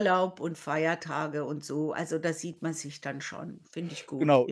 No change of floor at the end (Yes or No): No